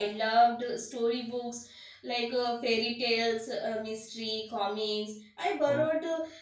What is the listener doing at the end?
listening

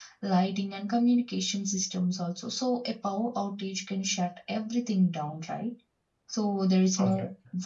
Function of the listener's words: listening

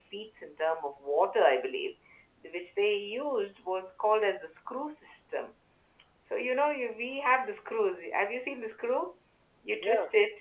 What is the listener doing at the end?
listening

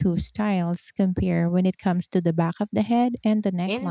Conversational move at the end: taking over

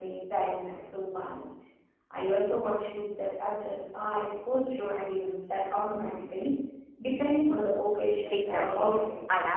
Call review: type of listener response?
taking over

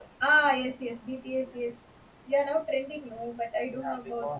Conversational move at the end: taking over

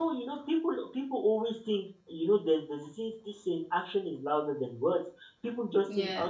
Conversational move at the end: listening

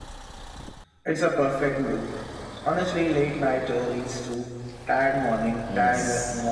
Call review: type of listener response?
taking over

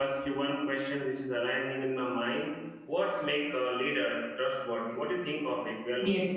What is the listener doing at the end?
taking over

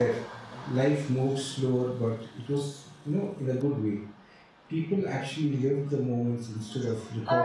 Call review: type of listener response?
taking over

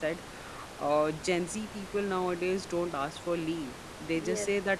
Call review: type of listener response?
listening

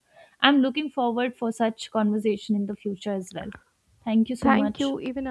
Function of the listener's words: taking over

